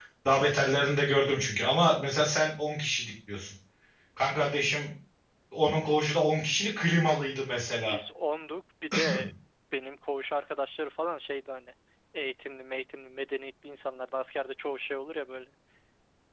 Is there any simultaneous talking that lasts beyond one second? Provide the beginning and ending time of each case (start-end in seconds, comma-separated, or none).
none